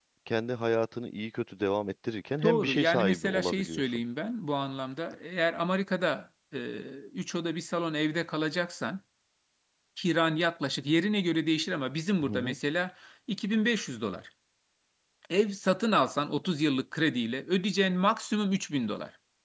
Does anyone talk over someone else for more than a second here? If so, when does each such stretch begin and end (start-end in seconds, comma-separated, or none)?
2.4-4.0